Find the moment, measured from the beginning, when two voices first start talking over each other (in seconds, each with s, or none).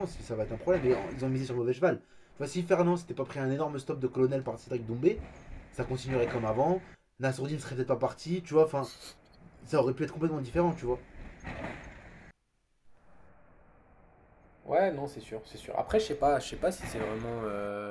none